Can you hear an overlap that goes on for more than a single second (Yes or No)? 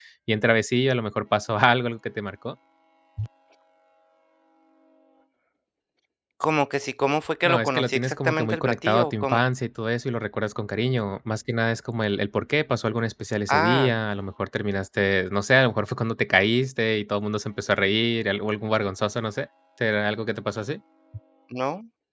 Yes